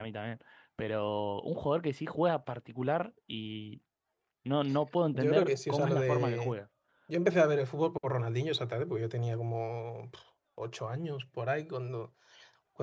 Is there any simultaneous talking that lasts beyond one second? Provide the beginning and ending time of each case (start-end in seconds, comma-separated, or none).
5.1-6.6